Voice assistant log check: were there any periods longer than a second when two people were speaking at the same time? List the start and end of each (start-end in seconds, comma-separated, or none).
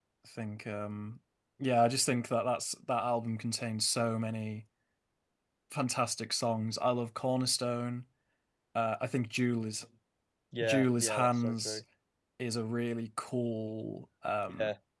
10.6-11.8